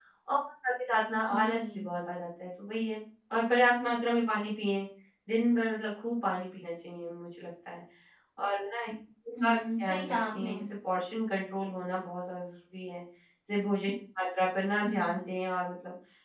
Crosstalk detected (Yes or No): Yes